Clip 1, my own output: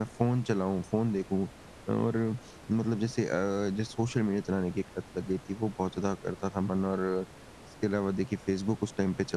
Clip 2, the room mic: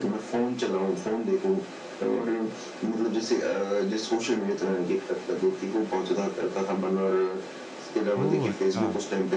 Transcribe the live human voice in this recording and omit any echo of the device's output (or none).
ओह अच्छा!